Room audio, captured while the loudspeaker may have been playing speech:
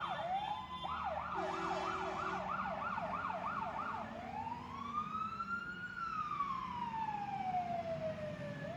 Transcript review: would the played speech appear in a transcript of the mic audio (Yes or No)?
No